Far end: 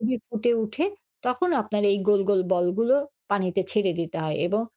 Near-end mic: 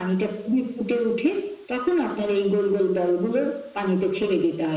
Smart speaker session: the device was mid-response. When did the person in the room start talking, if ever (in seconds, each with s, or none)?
none